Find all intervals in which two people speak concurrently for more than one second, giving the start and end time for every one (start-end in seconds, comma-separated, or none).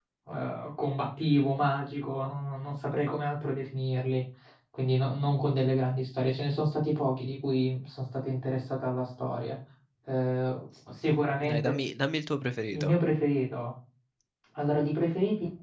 none